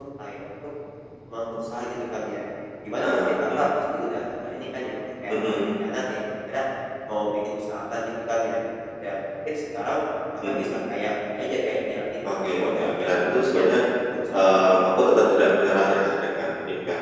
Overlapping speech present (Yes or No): Yes